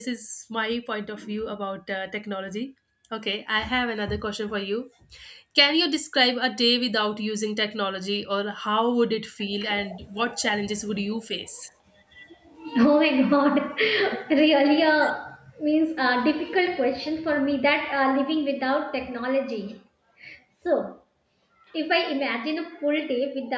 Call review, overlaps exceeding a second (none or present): none